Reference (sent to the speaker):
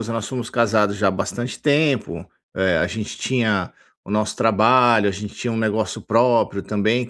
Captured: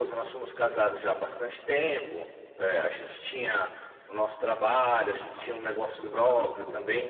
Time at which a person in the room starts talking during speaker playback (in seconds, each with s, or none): 5.1 s